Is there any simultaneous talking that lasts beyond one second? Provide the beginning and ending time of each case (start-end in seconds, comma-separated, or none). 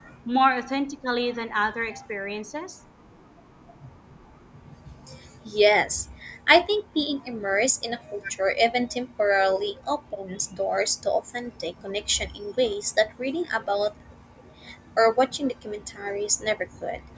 none